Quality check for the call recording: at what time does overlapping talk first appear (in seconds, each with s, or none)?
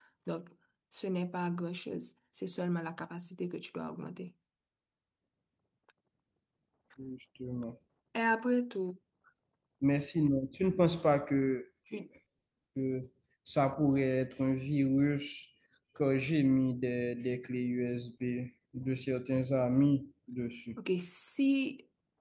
none